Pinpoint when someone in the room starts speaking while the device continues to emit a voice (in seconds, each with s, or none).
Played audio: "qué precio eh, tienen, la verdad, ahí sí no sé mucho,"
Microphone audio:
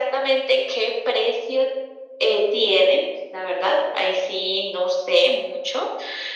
none